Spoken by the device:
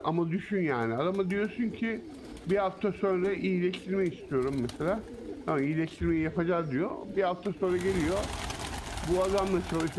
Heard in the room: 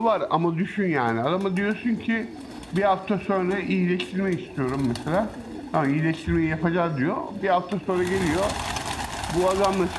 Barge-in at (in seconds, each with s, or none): none